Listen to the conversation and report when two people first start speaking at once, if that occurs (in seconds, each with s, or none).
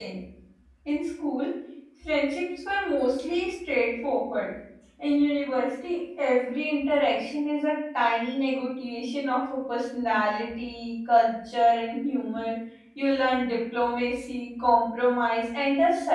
none